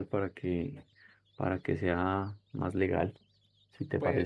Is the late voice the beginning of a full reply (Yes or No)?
Yes